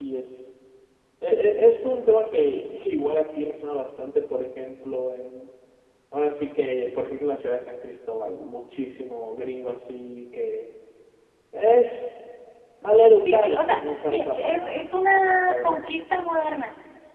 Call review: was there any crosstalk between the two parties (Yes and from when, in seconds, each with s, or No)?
Yes, from 13.2 s